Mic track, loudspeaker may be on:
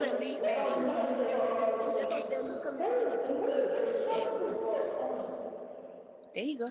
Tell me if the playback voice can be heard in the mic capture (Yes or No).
Yes